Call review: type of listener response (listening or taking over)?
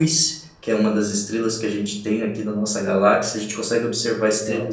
listening